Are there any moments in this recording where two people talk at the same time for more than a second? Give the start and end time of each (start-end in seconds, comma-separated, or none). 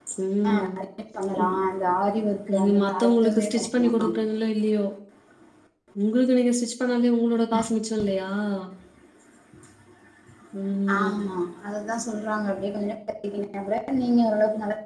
2.5-4.1